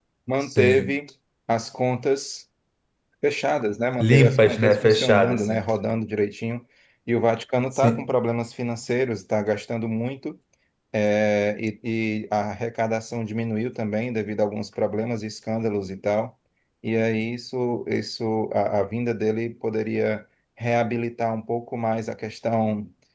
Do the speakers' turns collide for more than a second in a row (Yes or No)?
Yes